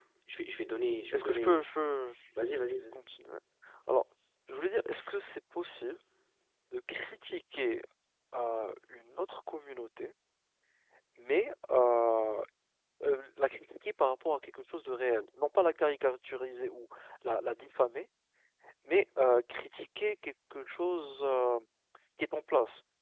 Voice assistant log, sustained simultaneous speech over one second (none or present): none